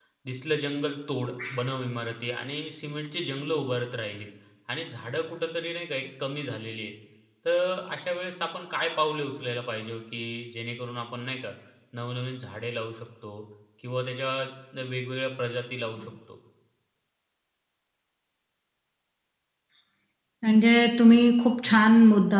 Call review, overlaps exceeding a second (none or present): none